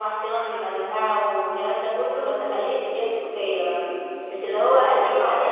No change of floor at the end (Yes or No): Yes